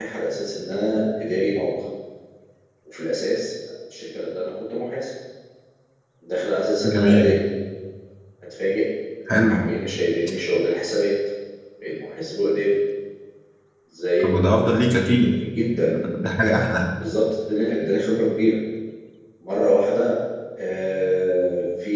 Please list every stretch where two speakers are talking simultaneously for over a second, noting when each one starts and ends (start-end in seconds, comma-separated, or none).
none